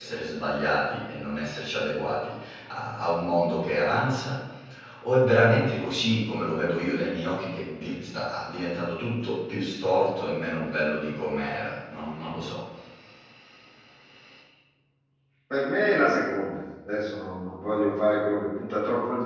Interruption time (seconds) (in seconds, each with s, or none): none